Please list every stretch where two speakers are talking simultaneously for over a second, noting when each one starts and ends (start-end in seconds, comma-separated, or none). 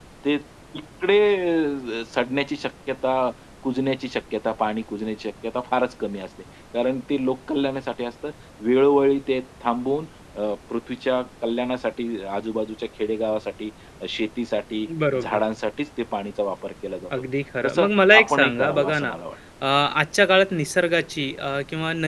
17.6-19.1